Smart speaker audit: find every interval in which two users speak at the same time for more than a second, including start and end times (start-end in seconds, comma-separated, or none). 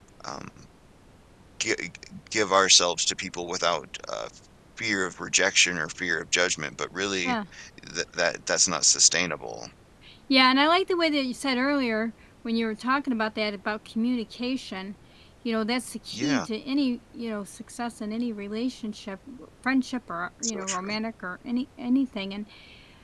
none